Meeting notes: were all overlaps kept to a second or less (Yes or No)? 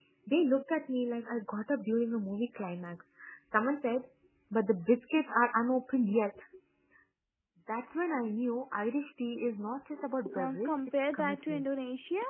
No